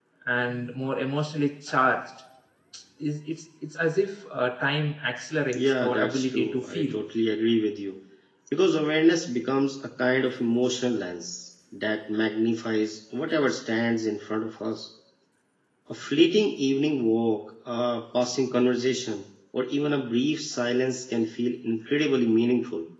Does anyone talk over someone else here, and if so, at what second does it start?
5.5 s

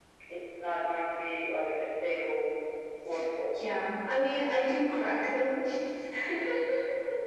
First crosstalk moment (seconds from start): none

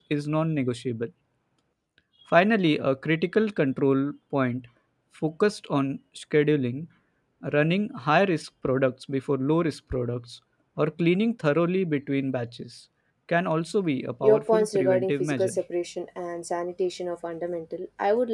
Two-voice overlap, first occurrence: 14.2 s

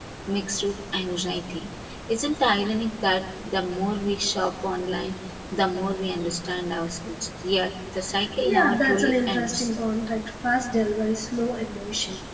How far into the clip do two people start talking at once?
8.2 s

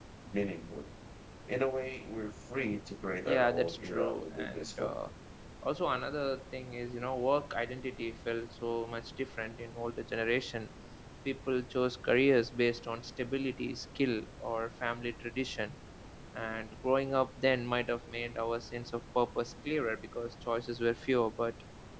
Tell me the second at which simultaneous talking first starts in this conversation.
3.3 s

